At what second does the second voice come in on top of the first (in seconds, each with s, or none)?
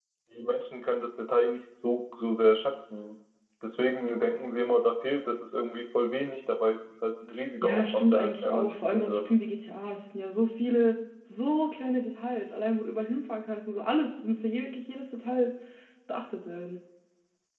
7.6 s